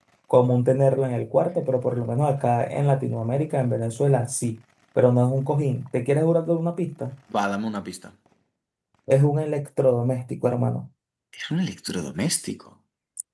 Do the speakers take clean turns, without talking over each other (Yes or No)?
Yes